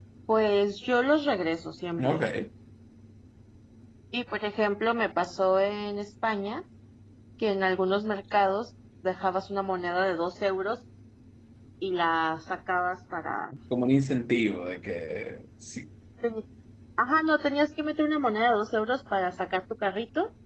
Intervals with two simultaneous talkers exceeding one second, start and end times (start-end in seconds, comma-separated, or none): none